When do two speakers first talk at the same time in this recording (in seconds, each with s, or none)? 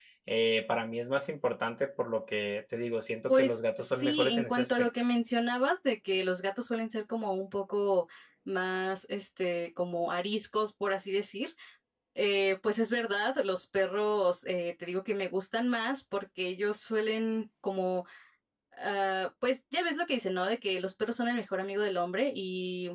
3.3 s